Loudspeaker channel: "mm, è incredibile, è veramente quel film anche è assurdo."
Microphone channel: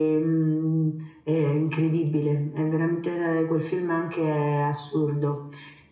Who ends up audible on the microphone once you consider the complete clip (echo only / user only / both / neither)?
echo only